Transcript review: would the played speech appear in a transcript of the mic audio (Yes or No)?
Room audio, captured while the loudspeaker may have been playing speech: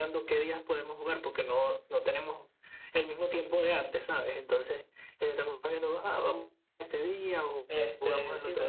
Yes